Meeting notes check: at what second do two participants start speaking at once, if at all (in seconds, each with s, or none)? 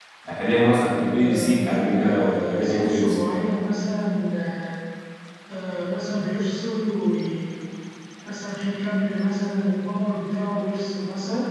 1.2 s